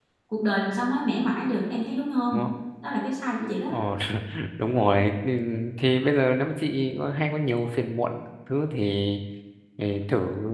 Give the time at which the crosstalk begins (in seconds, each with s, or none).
none